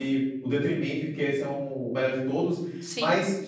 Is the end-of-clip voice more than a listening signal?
No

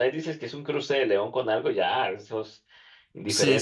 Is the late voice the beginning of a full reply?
Yes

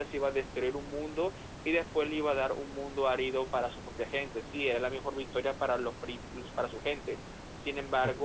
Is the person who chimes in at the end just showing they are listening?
Yes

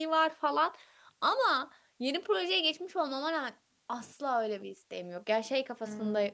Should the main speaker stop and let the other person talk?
No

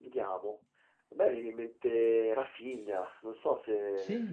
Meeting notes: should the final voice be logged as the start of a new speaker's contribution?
Yes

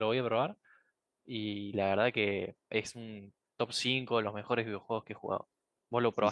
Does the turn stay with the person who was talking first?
No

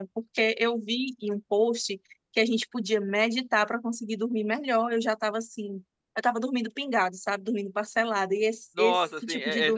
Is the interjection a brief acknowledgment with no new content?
No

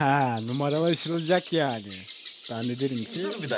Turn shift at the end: Yes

